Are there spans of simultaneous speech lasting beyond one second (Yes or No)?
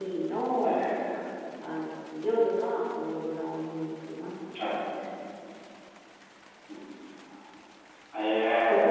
No